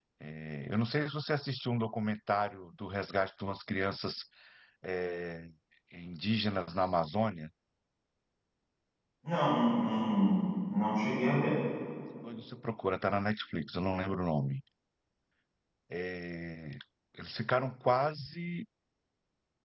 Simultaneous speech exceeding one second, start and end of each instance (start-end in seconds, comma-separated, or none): none